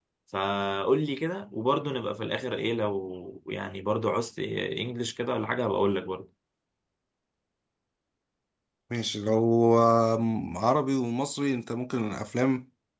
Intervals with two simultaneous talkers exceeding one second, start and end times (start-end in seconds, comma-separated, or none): none